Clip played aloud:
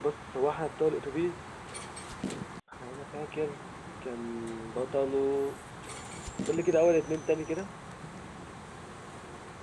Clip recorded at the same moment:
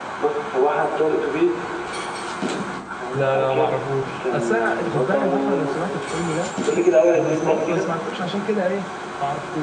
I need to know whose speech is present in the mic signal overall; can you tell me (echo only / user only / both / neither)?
both